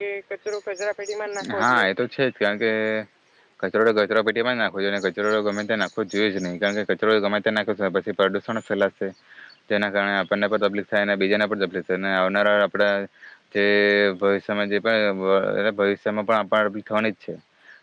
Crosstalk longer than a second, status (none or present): none